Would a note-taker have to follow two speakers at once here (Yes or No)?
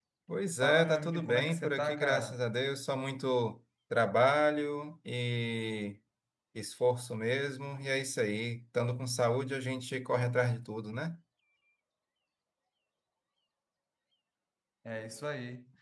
Yes